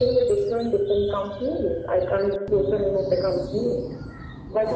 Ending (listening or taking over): listening